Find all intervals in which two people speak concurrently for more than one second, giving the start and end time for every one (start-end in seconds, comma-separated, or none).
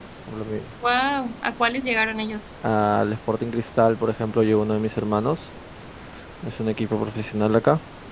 none